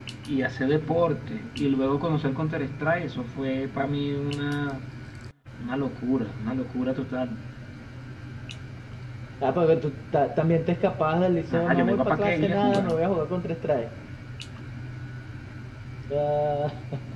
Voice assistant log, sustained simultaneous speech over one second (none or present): present